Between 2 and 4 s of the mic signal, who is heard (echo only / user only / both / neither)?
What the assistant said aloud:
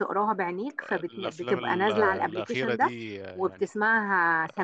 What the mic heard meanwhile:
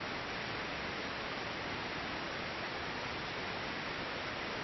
neither